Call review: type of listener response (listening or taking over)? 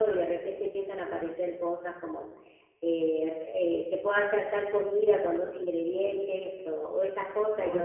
listening